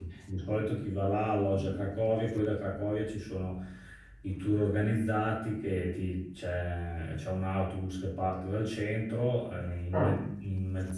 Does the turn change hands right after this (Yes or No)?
No